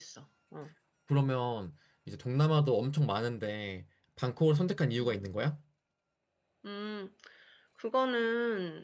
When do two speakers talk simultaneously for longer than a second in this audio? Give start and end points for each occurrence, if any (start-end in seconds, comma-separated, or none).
none